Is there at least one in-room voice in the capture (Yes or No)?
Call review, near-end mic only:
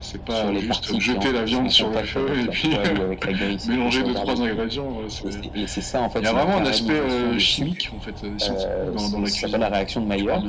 No